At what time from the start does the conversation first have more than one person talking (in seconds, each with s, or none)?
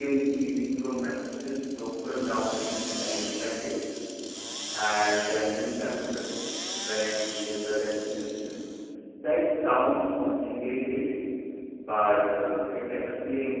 none